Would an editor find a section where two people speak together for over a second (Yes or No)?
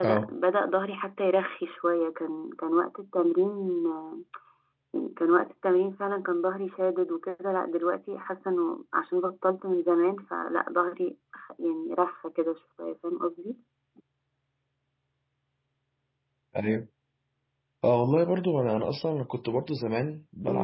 No